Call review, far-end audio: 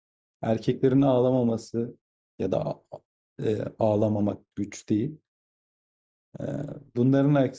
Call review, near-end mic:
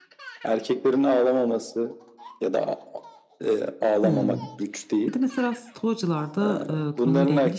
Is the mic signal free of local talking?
No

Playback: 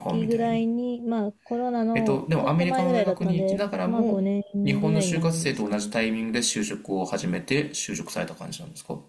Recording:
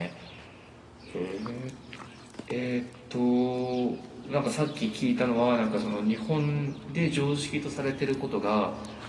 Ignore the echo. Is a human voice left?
Yes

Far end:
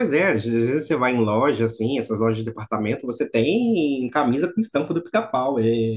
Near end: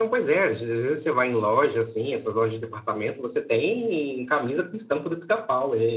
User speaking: No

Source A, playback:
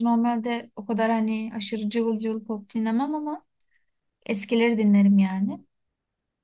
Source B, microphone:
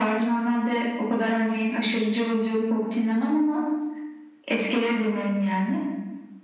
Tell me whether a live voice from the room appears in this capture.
No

